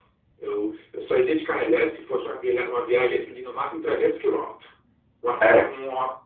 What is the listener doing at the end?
listening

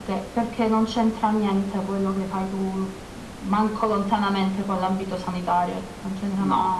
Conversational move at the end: taking over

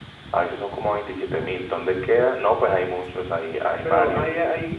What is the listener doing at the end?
taking over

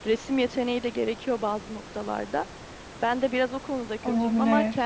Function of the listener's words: listening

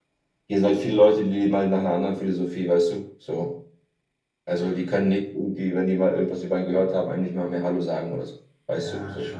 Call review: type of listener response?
taking over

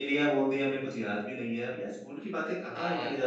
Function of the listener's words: listening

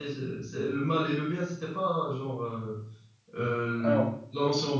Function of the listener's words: listening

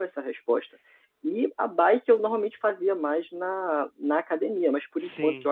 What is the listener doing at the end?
listening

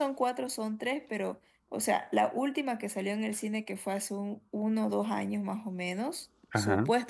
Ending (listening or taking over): listening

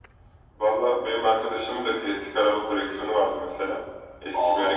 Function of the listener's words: listening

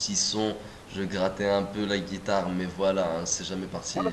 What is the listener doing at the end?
taking over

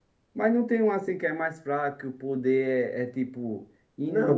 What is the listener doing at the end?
taking over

